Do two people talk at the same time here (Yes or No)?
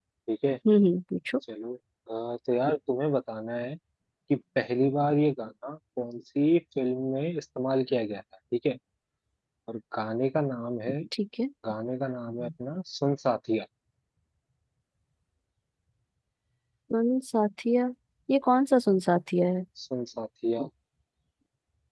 No